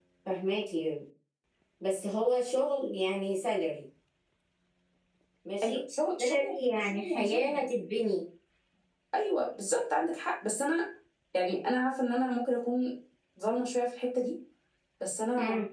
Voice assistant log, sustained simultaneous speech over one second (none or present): present